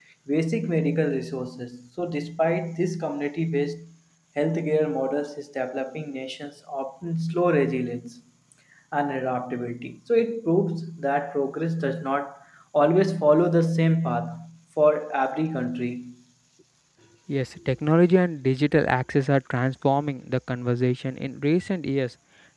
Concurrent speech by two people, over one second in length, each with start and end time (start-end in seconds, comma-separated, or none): none